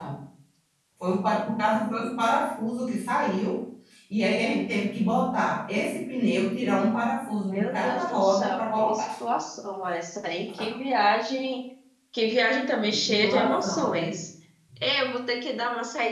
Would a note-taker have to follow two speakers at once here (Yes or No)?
Yes